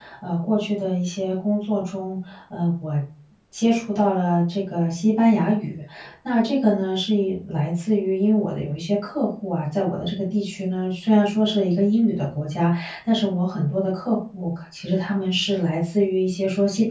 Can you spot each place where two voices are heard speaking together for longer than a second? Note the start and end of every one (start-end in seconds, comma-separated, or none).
none